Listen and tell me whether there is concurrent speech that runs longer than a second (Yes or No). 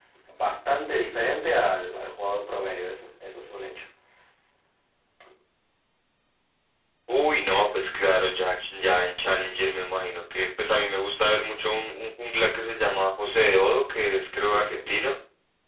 No